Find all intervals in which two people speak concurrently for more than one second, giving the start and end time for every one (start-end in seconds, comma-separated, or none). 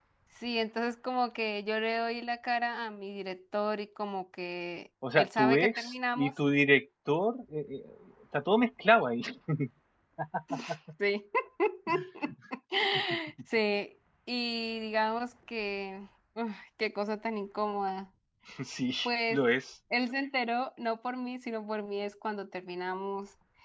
5.1-6.3